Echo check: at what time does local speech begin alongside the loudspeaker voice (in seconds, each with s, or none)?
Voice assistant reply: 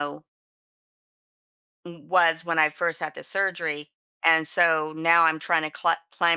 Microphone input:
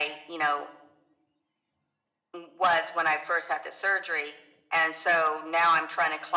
none